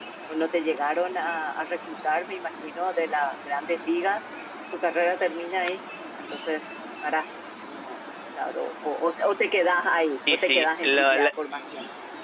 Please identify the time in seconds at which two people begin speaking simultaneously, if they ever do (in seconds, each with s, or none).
10.3 s